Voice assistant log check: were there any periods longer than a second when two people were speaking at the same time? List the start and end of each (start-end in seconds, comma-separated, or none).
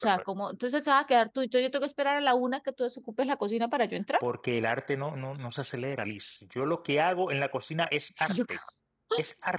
none